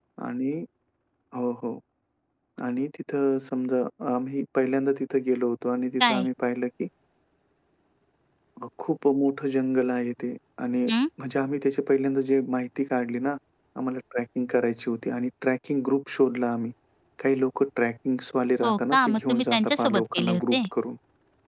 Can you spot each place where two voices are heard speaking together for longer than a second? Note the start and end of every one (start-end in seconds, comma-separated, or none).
18.6-20.7